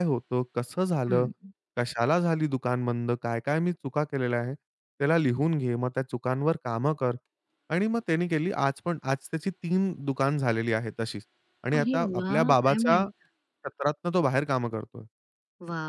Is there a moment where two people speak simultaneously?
Yes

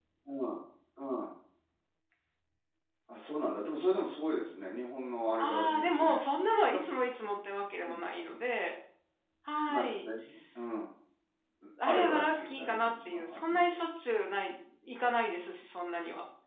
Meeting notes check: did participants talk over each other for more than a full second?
Yes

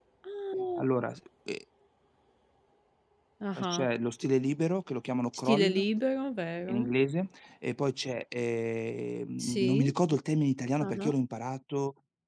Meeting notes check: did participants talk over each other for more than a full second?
No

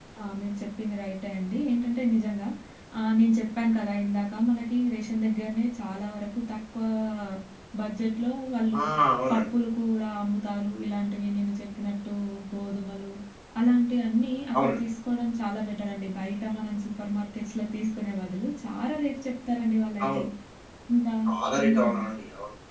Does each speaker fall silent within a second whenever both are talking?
Yes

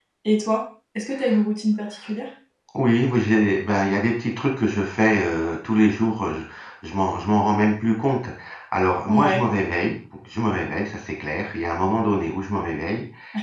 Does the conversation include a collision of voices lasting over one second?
No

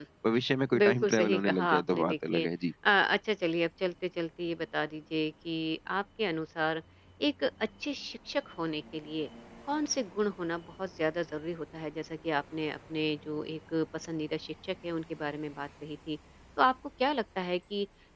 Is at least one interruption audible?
Yes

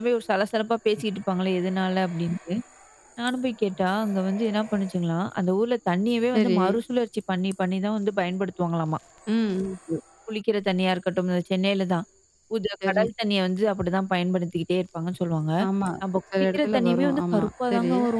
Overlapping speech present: Yes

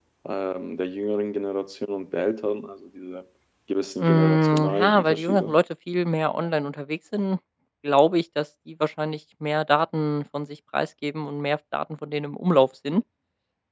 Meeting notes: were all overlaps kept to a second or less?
No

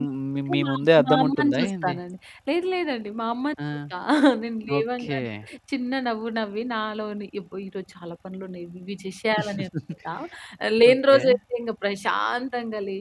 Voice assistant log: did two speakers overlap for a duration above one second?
Yes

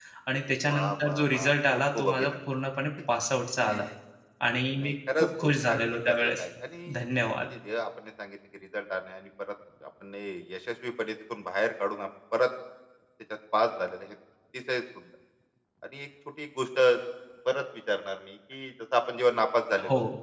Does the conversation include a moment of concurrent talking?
Yes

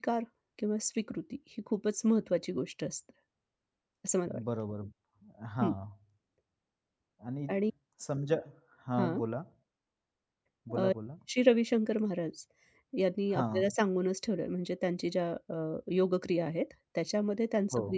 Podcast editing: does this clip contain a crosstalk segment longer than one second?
No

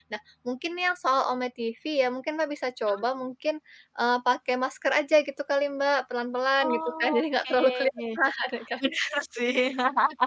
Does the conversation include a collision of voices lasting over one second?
Yes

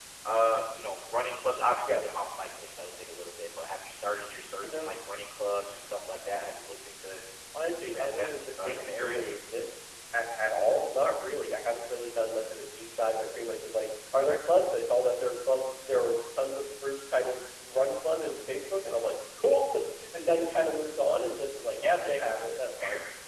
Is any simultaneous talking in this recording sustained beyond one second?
Yes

